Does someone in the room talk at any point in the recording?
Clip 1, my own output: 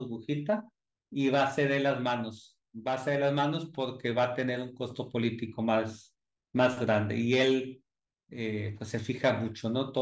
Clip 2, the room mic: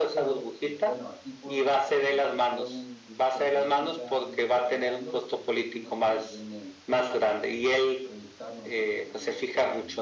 Yes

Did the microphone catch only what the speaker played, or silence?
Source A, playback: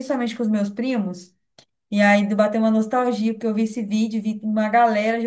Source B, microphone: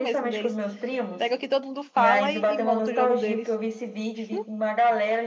No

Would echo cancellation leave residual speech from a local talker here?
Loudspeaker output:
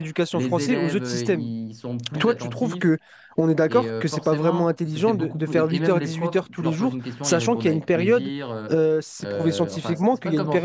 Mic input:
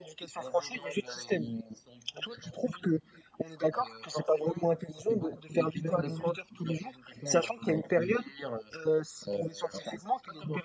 No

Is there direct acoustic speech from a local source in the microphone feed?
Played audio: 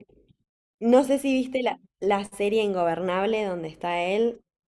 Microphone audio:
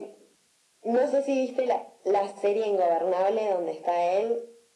No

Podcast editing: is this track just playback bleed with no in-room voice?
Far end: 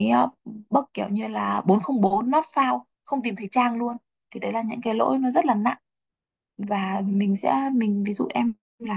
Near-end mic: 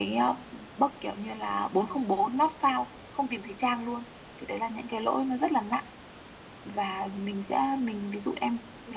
Yes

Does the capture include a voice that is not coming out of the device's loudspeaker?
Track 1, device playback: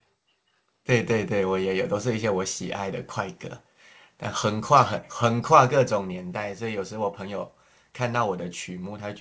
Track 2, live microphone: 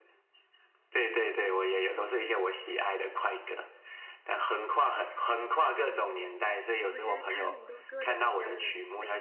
Yes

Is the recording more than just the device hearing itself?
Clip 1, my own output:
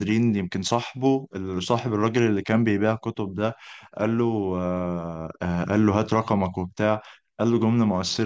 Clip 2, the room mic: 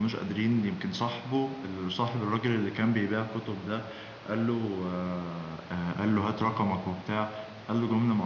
No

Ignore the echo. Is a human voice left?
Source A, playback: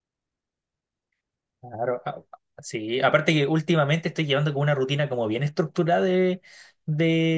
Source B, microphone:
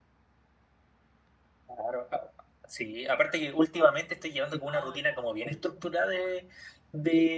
Yes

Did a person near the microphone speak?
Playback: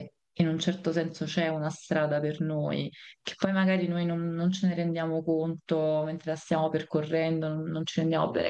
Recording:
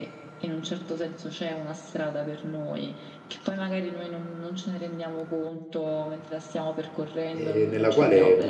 Yes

